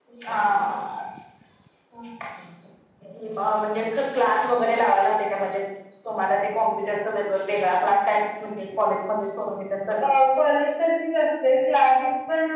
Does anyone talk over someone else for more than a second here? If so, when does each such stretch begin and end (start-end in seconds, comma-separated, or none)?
none